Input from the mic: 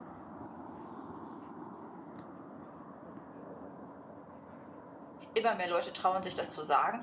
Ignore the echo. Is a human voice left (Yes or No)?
Yes